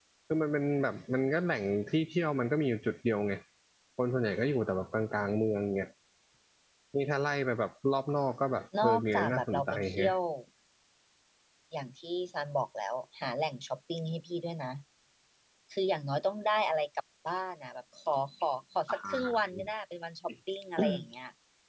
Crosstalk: present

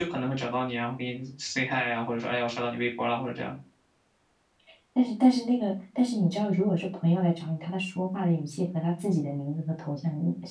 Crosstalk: none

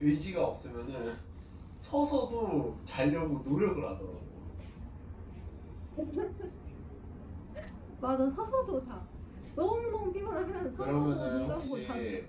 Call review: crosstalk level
present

